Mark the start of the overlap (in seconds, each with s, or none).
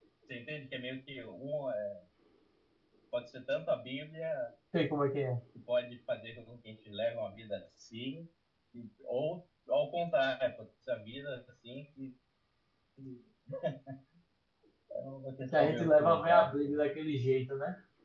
15.6 s